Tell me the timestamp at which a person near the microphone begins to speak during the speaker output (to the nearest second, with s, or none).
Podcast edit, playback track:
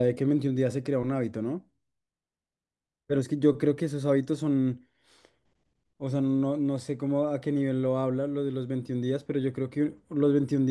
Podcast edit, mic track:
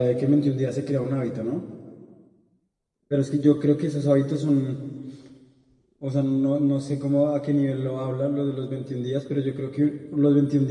none